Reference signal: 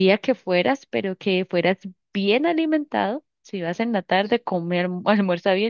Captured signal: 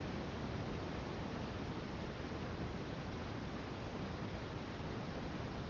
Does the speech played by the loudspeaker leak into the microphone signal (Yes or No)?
No